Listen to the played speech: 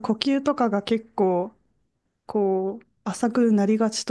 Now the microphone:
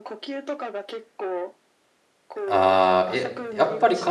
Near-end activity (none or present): present